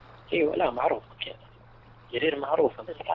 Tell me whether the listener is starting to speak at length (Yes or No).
No